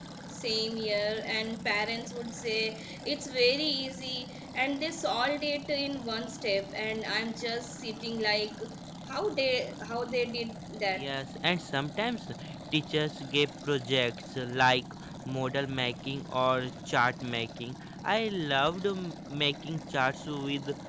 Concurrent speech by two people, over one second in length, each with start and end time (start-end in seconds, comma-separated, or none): none